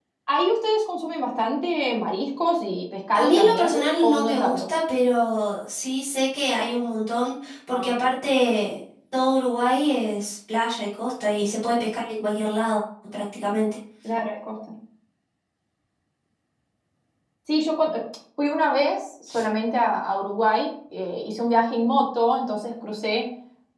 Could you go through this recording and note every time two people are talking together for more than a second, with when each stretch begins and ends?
3.1-4.6

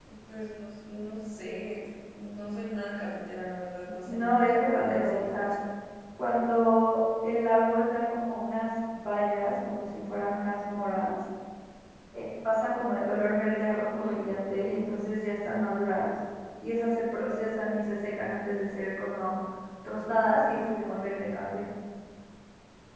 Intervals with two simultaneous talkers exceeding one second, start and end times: 4.0-5.5

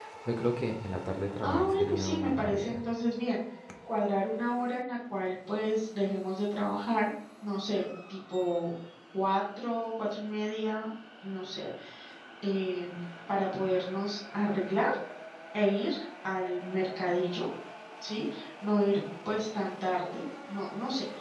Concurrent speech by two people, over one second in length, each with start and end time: 1.4-2.8

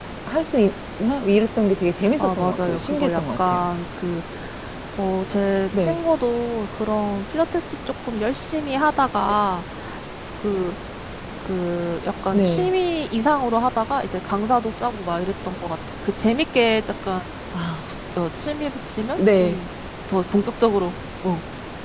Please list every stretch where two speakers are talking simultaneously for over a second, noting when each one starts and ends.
2.2-3.7

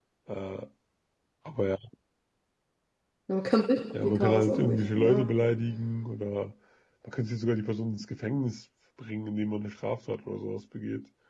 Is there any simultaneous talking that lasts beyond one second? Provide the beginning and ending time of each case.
4.0-5.2

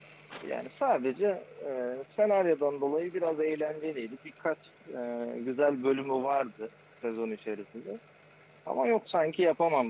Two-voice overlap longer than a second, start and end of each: none

